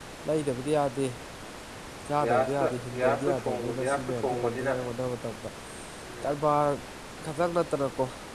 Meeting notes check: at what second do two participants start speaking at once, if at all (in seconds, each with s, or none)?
2.2 s